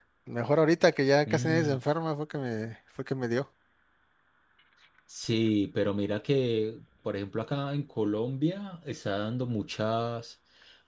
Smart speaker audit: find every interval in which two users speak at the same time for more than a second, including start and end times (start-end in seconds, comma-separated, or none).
none